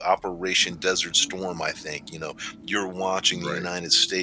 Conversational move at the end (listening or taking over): listening